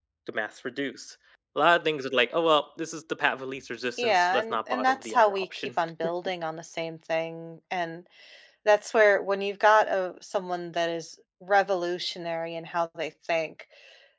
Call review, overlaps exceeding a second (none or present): present